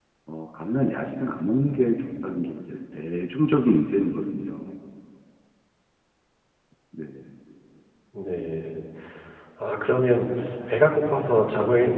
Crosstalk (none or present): none